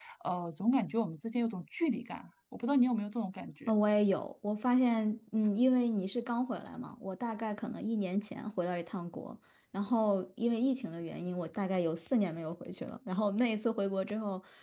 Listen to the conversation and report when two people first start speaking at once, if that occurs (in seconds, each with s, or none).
none